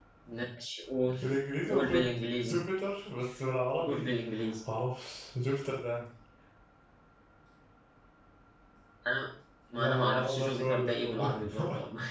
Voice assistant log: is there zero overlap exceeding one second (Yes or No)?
No